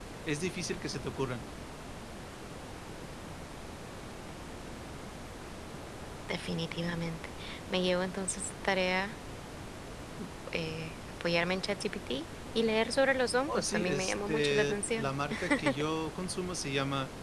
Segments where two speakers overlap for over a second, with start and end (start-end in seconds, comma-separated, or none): 13.5-15.1